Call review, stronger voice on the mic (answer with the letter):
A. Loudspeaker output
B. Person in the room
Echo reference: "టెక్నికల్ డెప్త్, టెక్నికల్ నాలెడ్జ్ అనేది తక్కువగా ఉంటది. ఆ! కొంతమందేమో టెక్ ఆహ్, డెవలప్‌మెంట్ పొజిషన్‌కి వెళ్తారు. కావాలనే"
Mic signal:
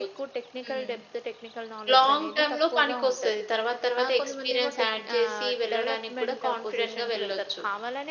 B